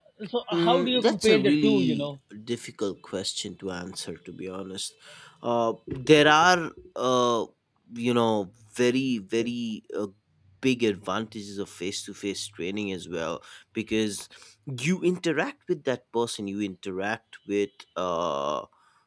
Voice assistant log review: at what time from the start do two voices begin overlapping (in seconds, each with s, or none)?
0.5 s